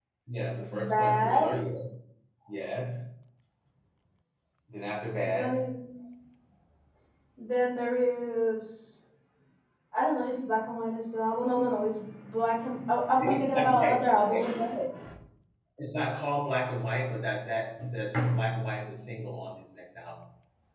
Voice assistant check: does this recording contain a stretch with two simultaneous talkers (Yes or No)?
Yes